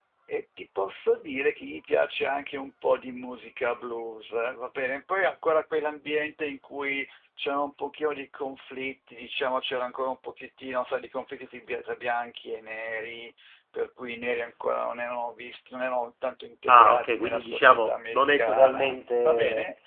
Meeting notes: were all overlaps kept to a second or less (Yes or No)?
No